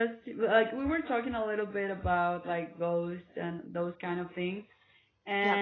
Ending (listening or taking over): listening